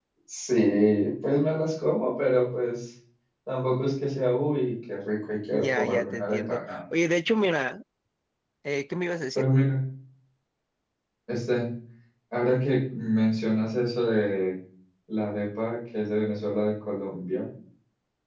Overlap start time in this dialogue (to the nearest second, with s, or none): 6 s